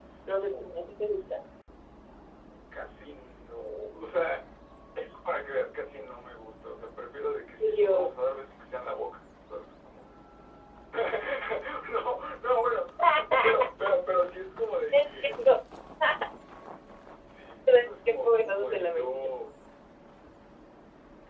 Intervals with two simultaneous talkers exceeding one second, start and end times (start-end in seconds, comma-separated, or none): 18.1-19.3